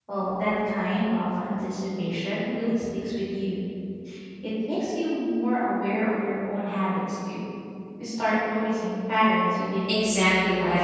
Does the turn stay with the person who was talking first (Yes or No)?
No